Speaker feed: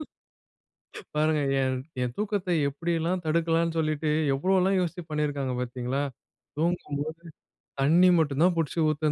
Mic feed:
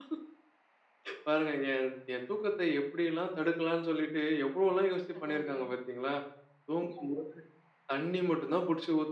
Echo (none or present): present